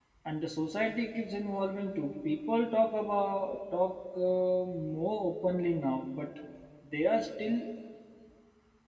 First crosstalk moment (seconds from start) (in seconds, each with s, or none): none